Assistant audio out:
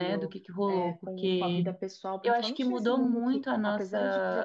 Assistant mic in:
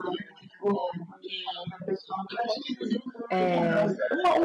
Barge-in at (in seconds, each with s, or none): 3.3 s